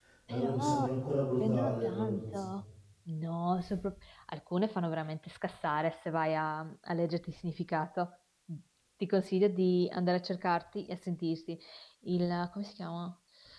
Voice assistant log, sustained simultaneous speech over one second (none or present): present